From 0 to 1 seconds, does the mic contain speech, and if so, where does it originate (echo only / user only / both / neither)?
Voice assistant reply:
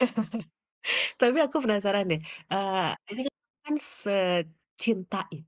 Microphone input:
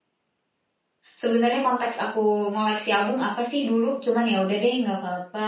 neither